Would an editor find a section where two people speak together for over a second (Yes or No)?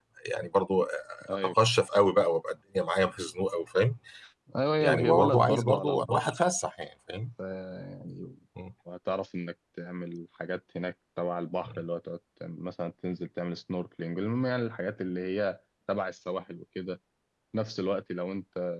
Yes